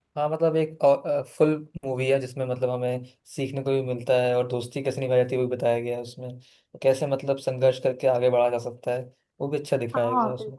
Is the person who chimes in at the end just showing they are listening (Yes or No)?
No